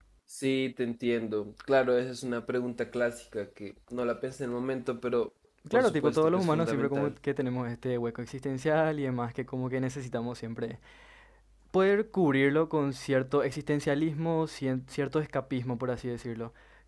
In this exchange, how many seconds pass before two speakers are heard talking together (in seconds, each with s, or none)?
5.7 s